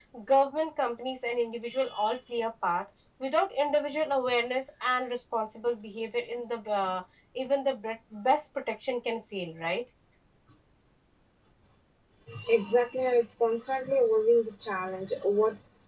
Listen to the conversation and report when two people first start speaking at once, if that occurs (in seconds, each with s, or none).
none